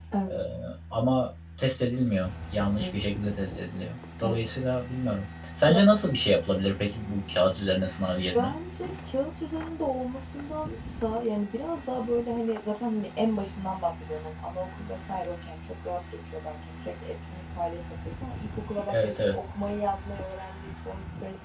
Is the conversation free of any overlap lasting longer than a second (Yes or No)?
Yes